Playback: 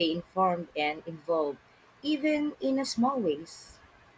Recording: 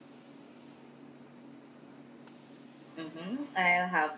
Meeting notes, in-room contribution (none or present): present